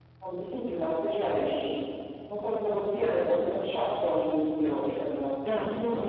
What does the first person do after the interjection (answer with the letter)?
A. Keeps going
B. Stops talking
B